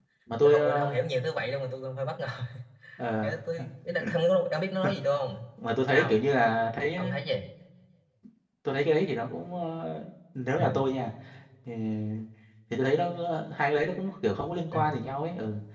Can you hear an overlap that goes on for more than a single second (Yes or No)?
No